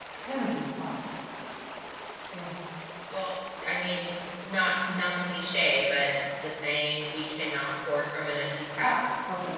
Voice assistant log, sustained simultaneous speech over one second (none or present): none